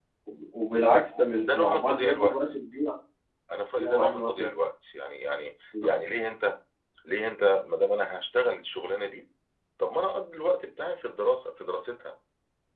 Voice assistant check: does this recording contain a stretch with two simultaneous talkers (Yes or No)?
Yes